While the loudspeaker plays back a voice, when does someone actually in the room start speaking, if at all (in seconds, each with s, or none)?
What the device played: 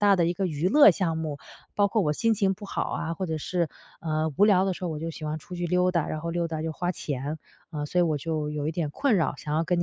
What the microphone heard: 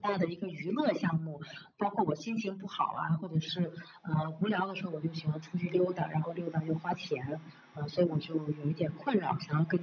none